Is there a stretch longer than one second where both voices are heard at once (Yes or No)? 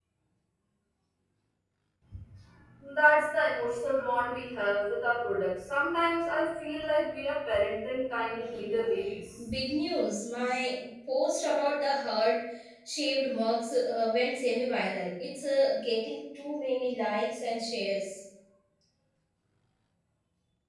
No